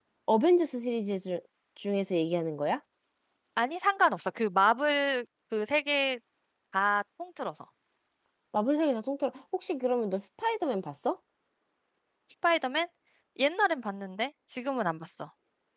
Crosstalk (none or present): none